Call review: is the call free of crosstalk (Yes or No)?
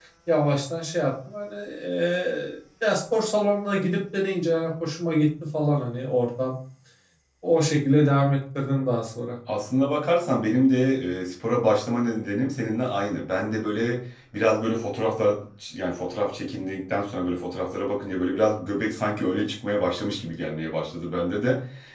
Yes